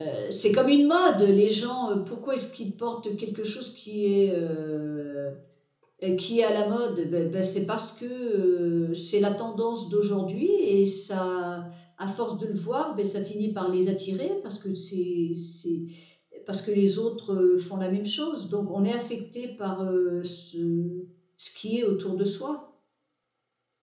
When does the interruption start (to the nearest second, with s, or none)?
none